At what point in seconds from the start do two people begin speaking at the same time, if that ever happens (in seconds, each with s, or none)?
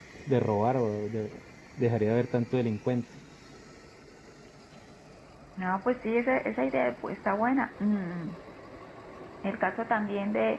none